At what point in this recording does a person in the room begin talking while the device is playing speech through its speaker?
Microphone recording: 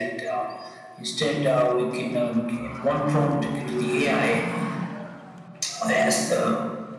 none

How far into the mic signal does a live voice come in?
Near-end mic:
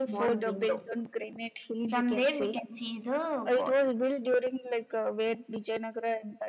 none

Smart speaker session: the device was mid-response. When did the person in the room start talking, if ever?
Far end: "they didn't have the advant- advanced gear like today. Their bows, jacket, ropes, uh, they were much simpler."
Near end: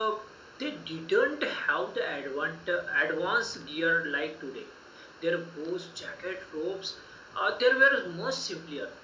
none

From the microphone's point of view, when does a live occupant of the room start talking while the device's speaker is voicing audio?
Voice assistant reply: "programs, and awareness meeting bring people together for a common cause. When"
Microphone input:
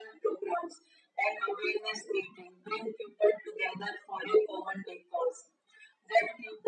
none

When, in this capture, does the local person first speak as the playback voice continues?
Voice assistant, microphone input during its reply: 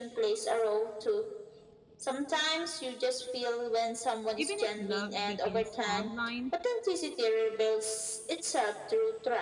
4.3 s

